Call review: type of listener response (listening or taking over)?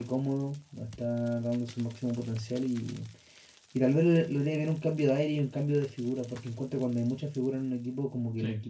listening